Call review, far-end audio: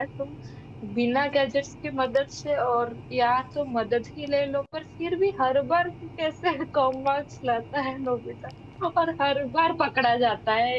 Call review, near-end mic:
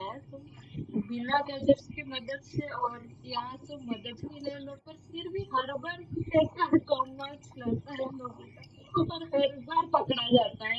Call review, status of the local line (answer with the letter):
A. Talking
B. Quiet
B